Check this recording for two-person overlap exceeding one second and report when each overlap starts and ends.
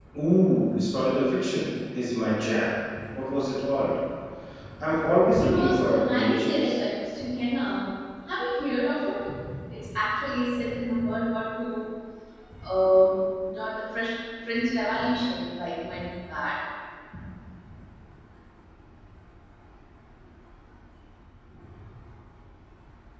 5.4-6.8

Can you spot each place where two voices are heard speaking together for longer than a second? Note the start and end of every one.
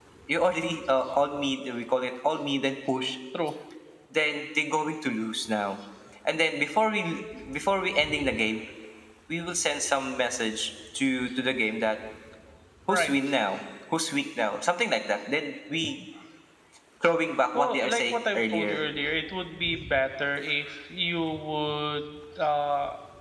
17.5-18.8

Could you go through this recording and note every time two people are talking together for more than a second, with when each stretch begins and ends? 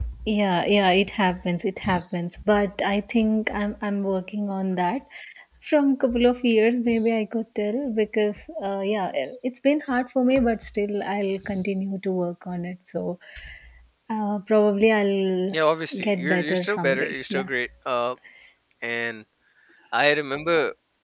16.1-17.5

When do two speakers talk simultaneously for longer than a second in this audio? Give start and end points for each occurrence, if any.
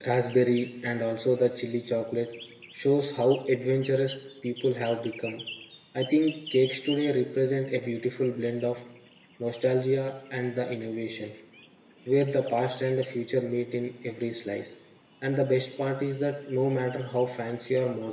none

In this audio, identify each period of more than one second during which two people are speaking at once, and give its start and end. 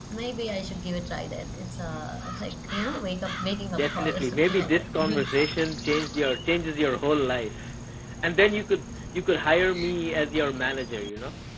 3.7-5.3

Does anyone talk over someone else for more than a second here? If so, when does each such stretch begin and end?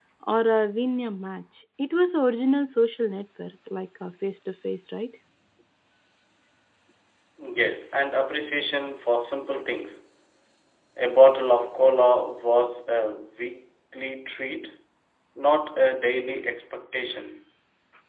none

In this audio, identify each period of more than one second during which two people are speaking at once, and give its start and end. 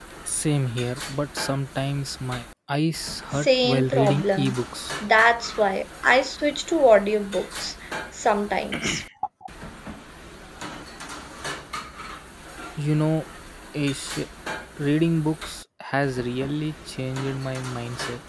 3.4-4.6

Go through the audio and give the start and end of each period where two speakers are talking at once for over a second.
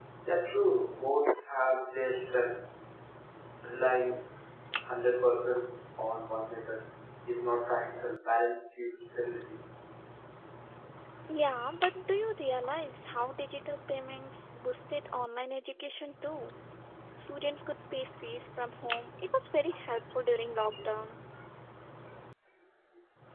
none

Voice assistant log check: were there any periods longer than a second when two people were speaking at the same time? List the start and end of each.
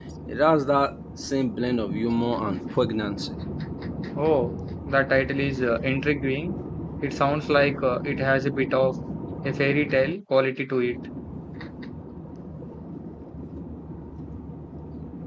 none

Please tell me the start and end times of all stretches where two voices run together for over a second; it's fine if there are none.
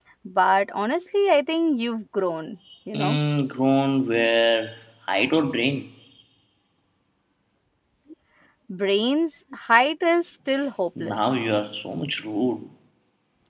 none

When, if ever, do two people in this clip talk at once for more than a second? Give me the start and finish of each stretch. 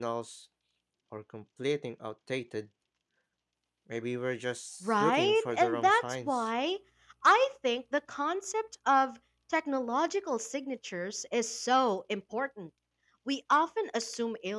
4.8-6.5

